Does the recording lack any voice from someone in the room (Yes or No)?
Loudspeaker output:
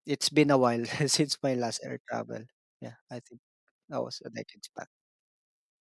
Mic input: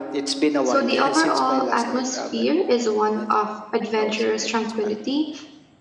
No